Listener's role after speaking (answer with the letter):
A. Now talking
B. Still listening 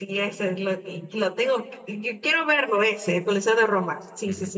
A